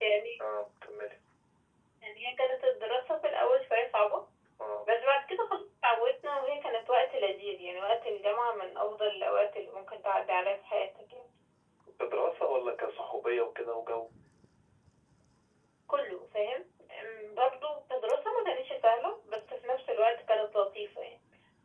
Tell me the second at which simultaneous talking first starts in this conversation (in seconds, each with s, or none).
none